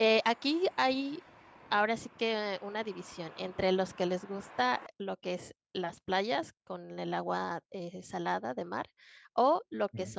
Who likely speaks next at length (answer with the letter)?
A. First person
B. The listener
A